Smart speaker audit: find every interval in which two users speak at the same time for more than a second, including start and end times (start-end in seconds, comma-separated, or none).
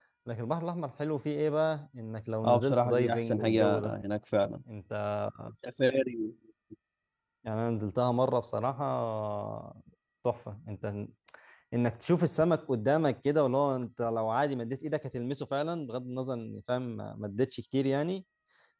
2.4-4.0